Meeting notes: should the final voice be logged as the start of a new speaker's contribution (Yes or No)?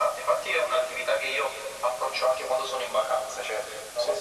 No